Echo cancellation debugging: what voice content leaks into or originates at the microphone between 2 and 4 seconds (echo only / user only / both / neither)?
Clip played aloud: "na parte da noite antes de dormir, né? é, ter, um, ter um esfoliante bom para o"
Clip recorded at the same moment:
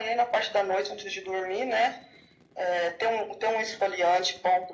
echo only